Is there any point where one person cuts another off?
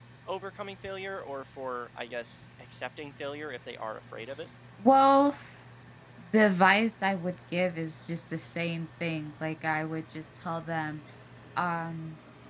No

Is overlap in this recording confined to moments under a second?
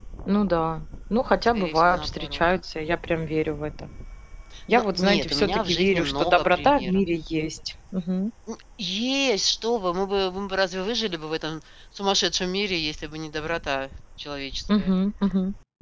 No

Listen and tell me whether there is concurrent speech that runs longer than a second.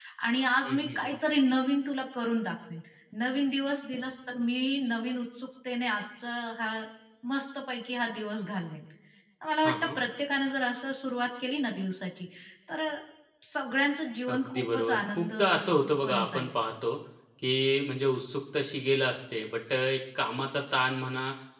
Yes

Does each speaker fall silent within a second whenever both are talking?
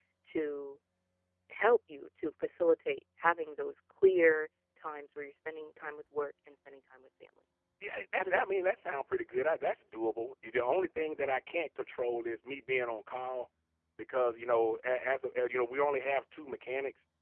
Yes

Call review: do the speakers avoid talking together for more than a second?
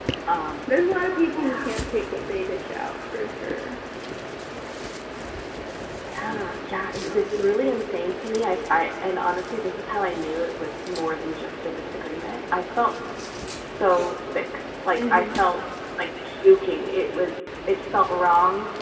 Yes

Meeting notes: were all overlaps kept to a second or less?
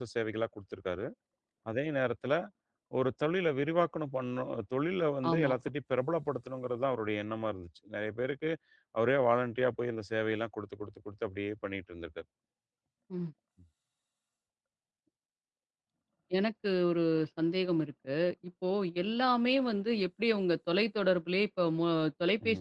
Yes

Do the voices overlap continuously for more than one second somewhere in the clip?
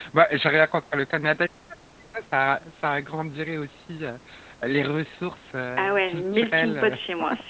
Yes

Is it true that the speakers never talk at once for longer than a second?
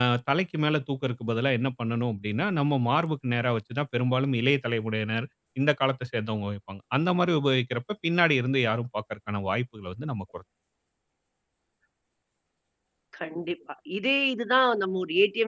Yes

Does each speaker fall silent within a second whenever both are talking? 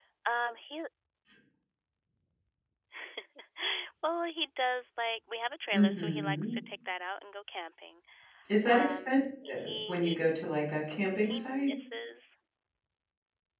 No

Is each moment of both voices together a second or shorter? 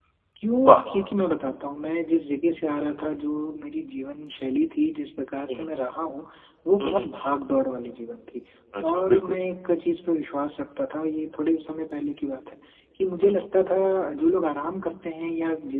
Yes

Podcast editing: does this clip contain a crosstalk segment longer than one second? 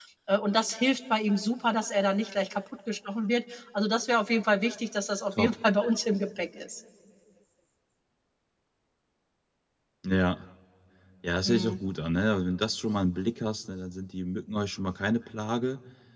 No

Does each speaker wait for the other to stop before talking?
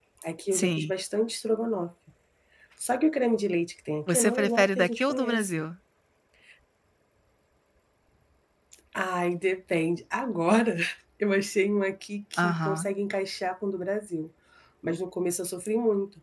No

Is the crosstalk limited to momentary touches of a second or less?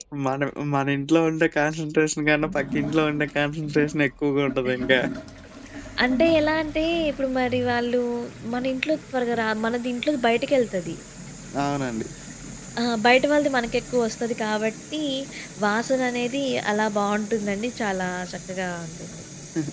Yes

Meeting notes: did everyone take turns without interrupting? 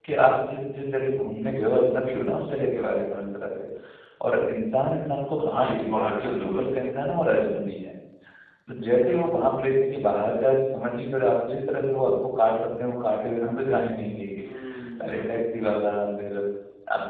No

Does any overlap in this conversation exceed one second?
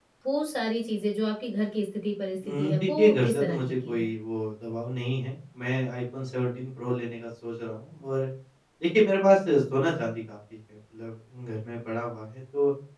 Yes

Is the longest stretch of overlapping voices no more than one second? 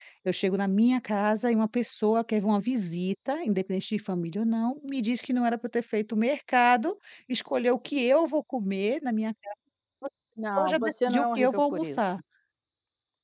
No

